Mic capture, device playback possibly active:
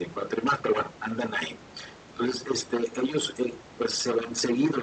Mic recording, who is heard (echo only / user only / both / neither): echo only